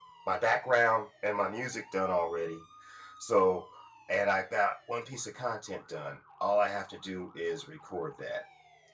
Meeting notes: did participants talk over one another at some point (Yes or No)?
No